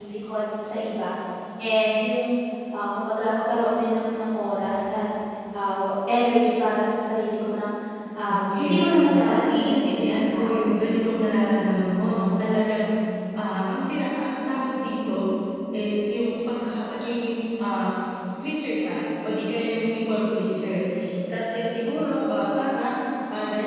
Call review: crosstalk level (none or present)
present